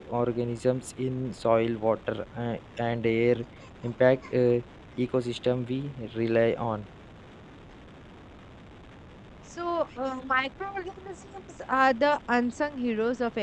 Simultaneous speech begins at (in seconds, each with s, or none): none